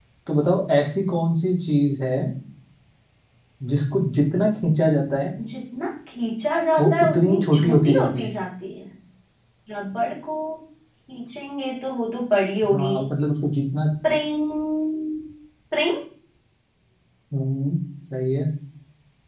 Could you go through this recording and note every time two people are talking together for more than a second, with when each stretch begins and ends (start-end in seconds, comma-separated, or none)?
6.8-8.3